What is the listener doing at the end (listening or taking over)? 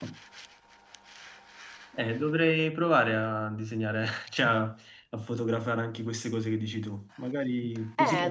taking over